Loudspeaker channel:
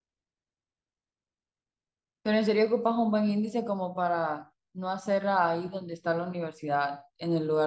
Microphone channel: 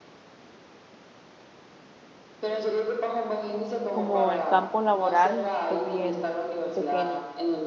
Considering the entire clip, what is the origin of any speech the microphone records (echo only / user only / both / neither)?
both